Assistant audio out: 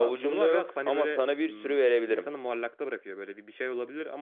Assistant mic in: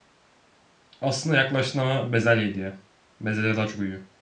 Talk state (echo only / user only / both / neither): user only